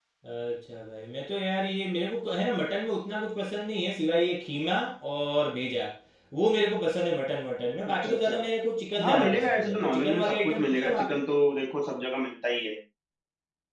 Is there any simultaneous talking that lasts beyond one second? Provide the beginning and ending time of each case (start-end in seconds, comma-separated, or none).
9.0-11.2